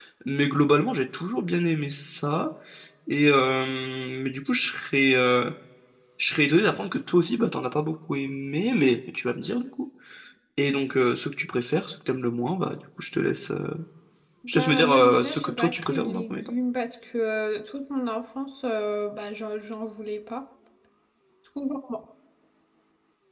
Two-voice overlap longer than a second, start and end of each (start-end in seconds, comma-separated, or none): 14.5-16.5